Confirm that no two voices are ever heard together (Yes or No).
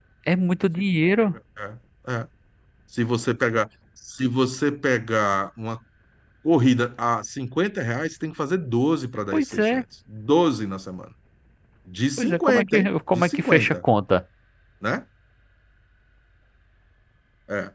No